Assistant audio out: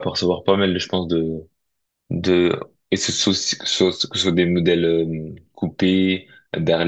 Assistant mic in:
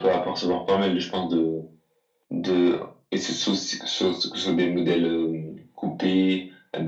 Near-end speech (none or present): none